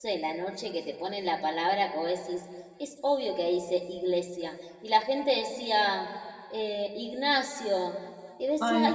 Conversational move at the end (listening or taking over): listening